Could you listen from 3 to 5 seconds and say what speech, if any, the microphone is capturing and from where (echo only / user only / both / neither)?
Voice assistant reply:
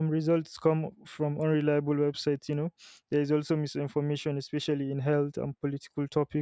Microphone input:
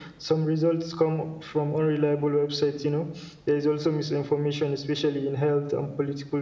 echo only